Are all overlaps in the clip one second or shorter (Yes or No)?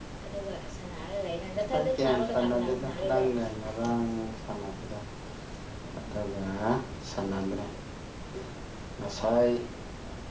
No